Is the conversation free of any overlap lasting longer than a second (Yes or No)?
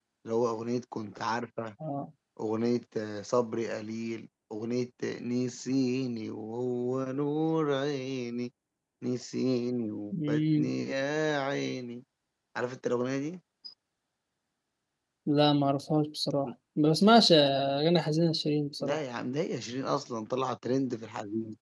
Yes